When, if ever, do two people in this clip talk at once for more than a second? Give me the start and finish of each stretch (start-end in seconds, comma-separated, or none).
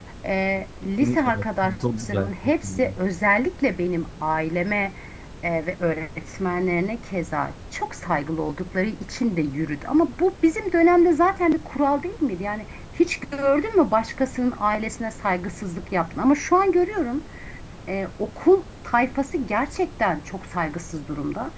1.0-2.9